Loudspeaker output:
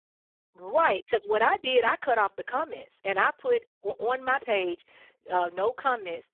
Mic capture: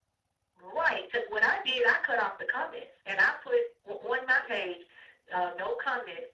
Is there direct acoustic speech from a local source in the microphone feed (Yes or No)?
No